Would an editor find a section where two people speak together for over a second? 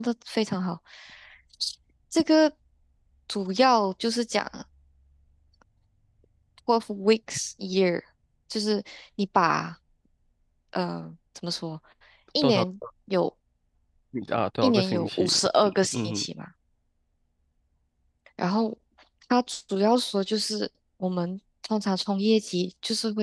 Yes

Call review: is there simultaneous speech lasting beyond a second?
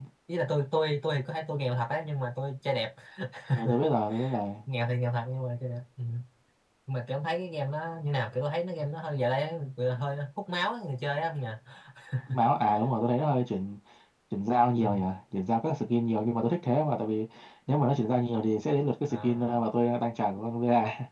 No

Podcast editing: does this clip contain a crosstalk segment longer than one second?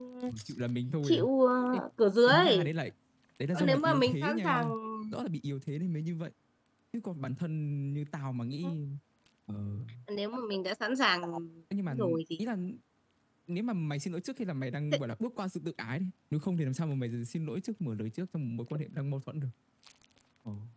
Yes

